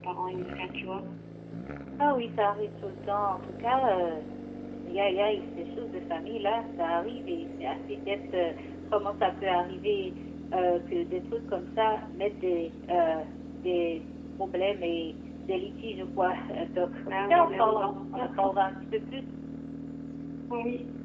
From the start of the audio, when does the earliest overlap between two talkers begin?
17.1 s

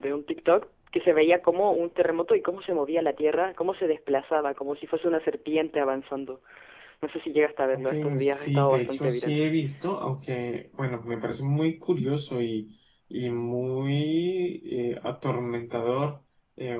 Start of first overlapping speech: 7.7 s

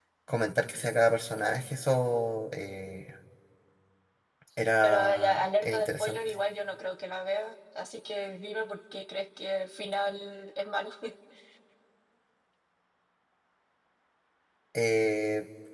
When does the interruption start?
4.8 s

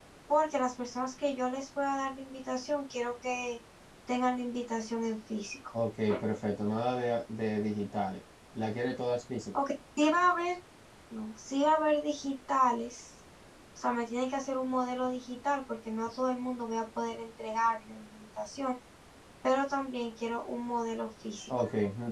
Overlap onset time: none

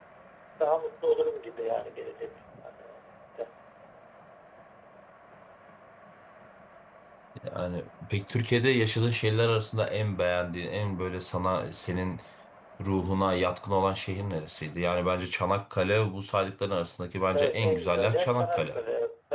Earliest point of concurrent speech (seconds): 17.3 s

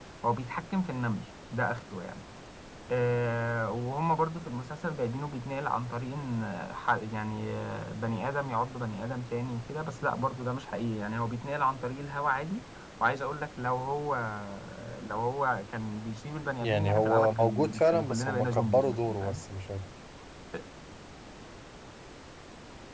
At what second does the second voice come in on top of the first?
16.6 s

